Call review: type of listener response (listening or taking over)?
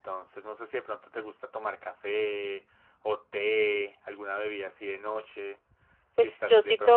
taking over